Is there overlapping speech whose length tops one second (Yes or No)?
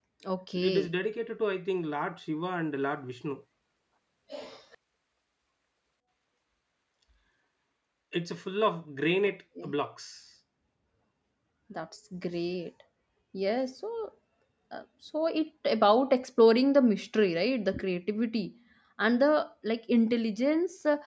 No